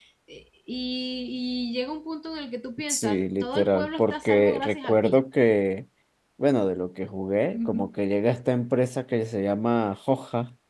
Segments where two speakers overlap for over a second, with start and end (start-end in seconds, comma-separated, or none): 2.9-5.2